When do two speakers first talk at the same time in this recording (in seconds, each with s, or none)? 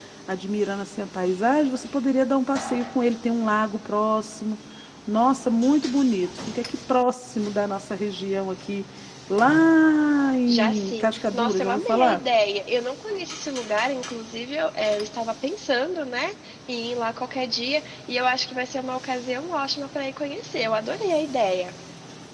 10.5 s